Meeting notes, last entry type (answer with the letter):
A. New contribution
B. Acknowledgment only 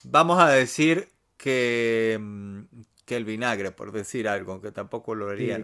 A